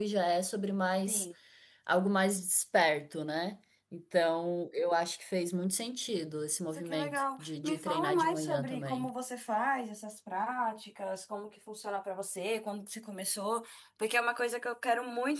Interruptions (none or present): present